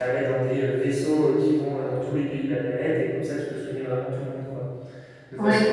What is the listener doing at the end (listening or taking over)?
listening